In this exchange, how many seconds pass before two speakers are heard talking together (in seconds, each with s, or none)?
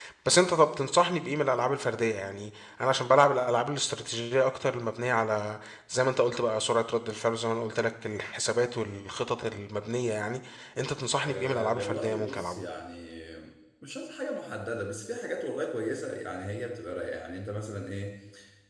11.2 s